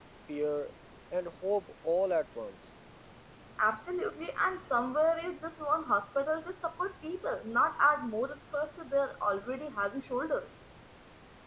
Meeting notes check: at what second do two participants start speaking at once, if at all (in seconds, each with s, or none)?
none